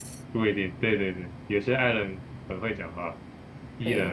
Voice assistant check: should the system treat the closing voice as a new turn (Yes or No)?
Yes